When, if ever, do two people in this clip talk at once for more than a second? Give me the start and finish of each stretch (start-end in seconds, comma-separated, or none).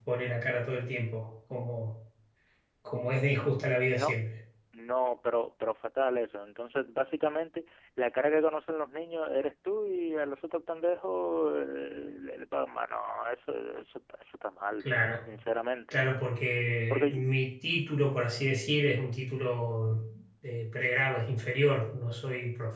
none